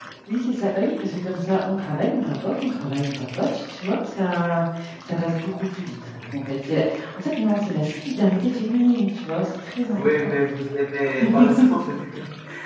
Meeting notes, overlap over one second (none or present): none